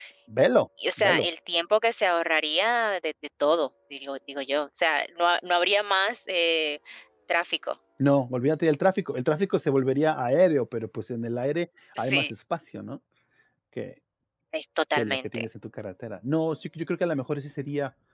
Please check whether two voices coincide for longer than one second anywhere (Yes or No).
No